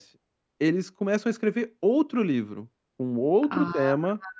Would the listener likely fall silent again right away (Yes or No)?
Yes